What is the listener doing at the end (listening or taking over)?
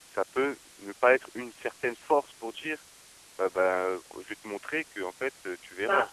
taking over